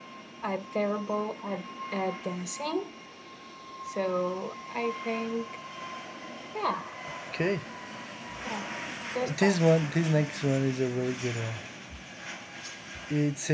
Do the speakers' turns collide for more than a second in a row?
No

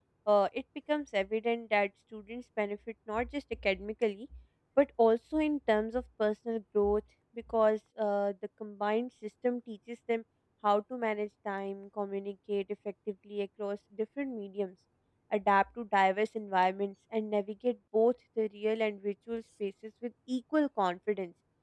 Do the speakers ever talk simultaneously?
No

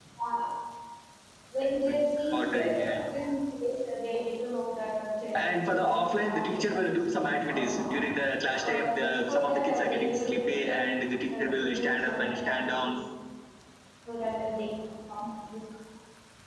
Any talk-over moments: Yes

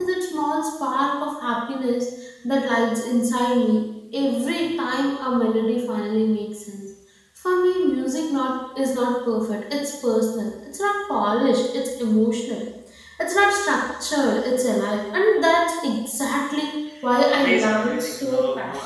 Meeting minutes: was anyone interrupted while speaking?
Yes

